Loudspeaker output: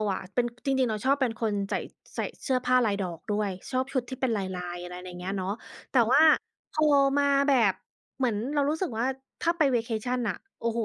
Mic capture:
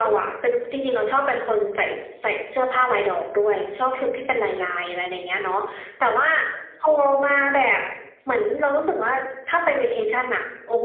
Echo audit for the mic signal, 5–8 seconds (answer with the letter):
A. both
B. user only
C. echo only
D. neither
C